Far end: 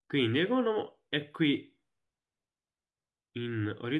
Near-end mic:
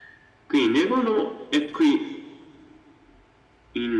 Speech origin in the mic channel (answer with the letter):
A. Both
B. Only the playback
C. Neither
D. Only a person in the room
B